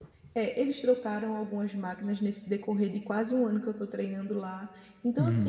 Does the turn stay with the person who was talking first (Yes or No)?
Yes